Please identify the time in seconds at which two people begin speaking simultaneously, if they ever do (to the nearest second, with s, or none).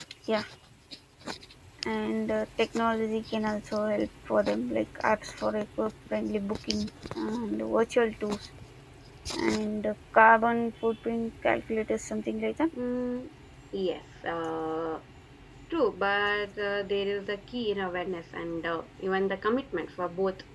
none